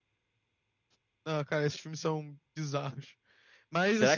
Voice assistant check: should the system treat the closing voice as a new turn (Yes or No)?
Yes